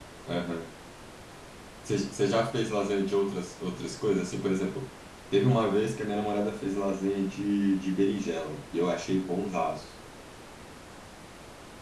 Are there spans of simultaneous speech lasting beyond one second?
No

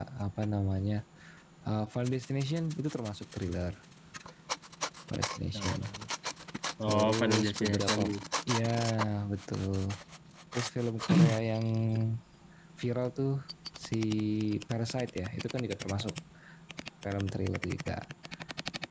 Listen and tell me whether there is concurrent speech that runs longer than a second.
Yes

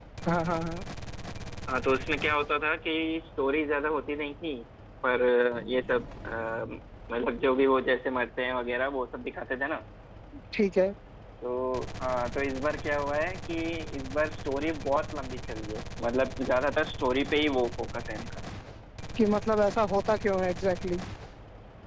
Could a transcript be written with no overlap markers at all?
Yes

